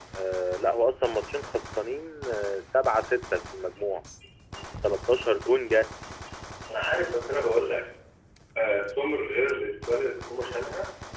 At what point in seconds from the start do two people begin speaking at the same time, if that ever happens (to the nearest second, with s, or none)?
none